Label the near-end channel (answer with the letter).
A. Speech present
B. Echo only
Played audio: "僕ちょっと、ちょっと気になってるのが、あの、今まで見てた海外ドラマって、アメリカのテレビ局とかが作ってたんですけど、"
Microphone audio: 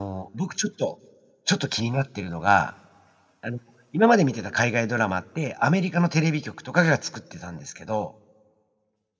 B